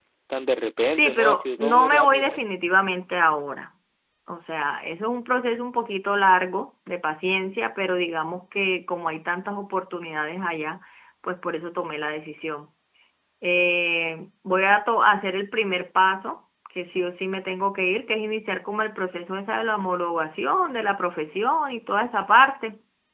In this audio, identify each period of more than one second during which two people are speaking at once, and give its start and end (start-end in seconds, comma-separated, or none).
0.9-2.4